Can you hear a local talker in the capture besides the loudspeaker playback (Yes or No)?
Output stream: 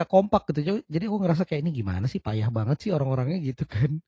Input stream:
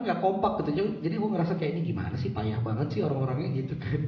No